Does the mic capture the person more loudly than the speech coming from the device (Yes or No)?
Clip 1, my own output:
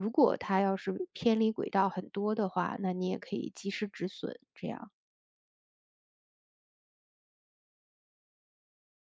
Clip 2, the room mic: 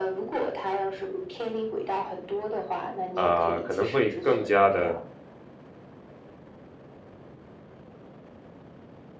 Yes